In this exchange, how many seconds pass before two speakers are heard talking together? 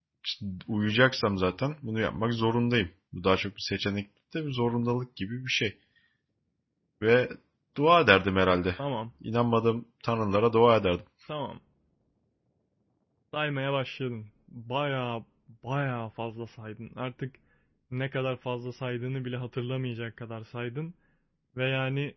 none

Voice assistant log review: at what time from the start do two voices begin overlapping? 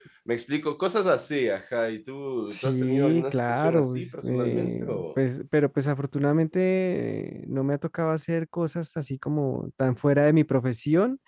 2.5 s

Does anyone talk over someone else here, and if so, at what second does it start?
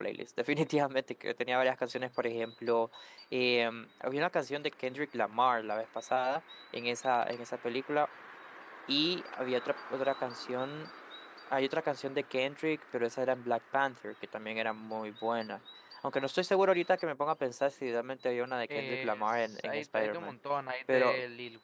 18.8 s

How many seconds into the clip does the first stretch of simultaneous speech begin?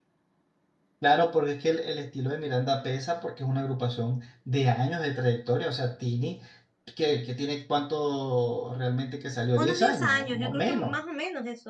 9.5 s

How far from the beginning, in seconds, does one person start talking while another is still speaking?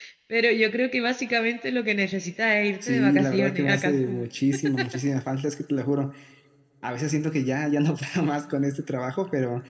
2.8 s

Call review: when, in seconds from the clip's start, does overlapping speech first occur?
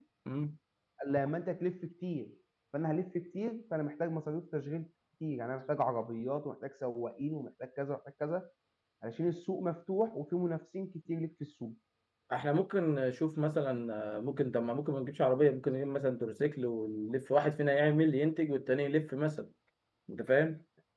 none

